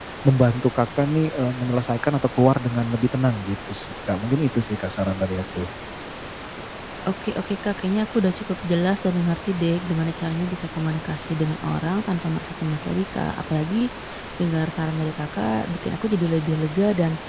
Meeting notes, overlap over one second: none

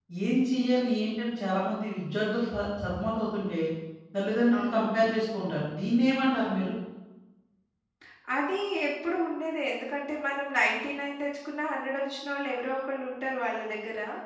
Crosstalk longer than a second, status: none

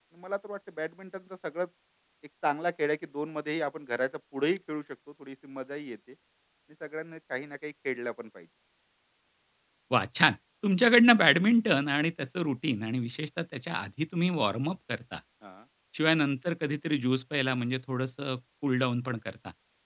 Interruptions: none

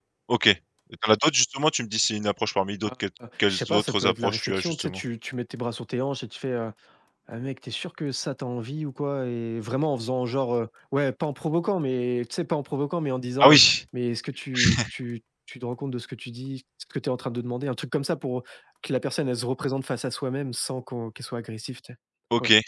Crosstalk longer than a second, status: present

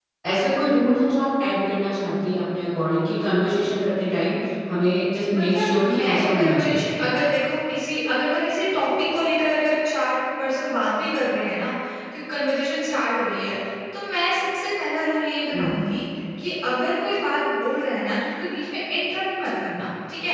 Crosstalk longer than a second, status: present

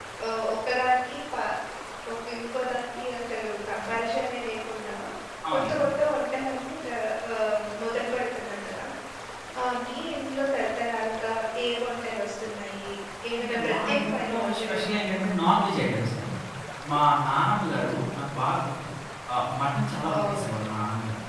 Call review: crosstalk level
present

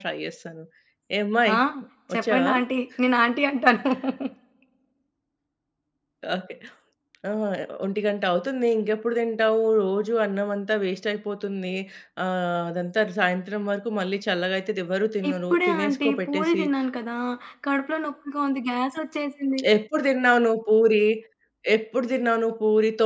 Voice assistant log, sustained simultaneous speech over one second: present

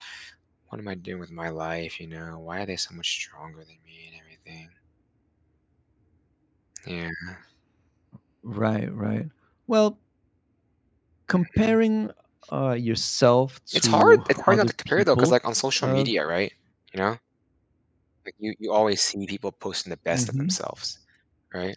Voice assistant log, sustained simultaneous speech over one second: present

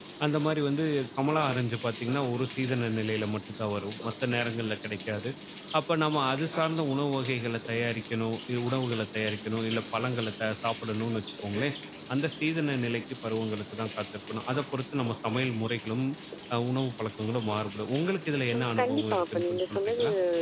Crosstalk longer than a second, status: present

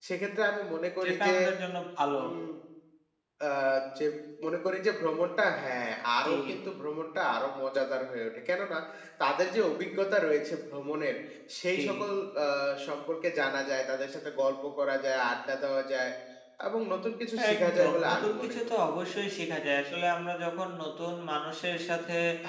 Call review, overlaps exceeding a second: present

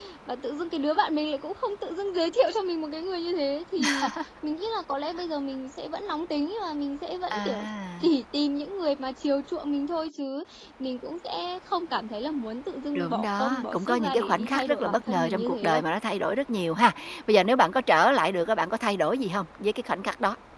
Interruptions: present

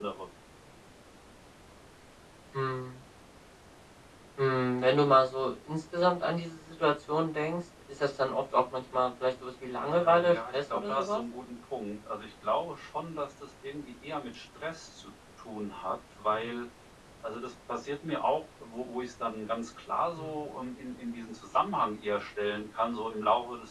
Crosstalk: present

